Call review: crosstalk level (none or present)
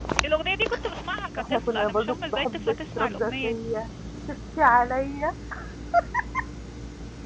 present